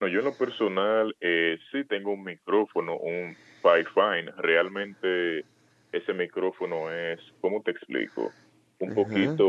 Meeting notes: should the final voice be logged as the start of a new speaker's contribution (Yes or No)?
No